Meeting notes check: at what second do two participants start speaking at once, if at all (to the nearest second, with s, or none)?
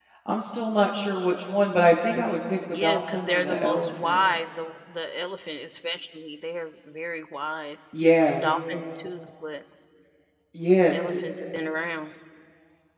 3 s